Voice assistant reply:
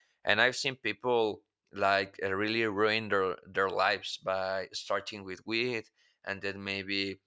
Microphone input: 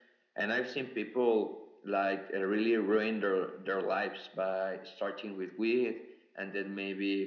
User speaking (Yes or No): No